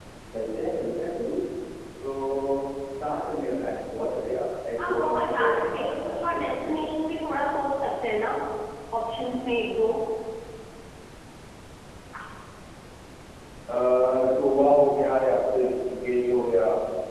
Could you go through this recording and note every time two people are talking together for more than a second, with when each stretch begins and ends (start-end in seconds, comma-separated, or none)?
4.8-6.7